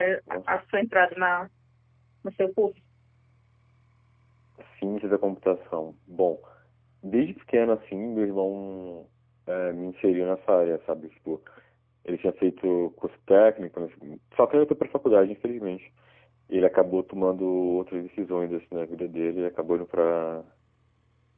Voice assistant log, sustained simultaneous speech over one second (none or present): none